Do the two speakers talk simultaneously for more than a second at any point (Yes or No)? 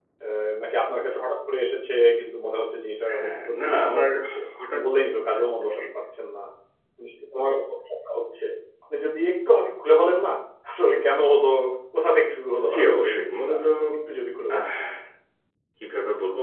Yes